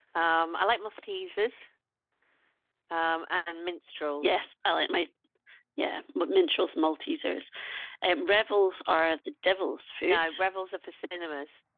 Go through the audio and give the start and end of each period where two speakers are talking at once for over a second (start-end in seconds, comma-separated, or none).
none